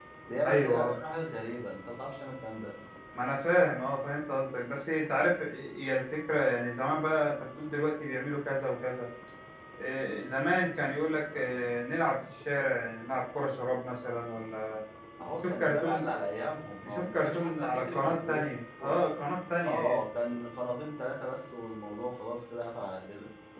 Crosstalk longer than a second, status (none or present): present